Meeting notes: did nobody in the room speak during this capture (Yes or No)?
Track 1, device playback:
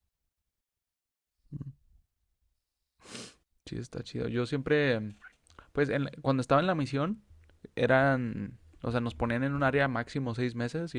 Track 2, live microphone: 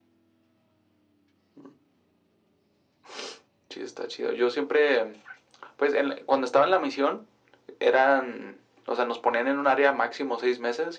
Yes